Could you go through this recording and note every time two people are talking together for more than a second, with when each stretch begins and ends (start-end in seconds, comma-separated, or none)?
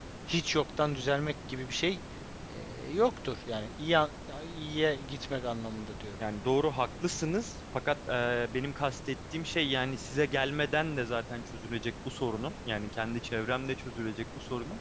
none